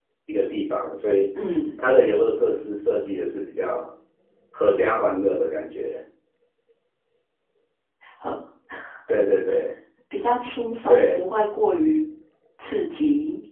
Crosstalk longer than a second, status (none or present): none